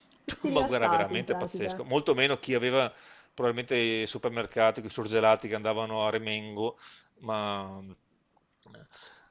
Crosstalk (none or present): present